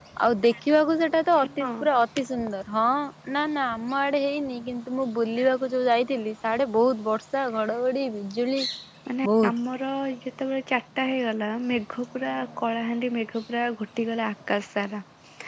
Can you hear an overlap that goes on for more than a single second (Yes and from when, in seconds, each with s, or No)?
No